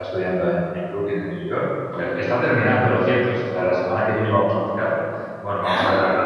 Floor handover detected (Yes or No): No